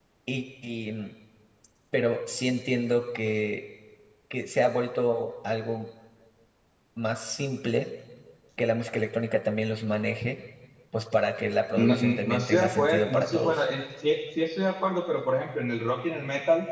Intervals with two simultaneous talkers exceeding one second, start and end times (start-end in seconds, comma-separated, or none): 11.8-13.6